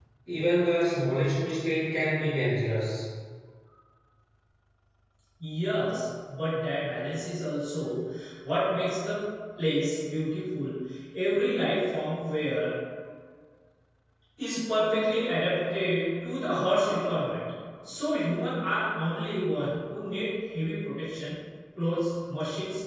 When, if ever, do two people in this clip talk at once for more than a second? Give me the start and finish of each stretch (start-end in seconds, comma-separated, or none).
none